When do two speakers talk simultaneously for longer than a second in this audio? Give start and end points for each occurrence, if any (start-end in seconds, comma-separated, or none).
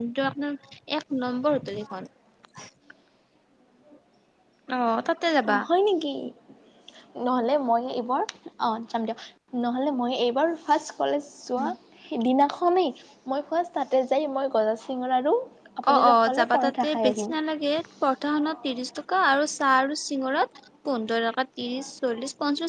15.9-17.3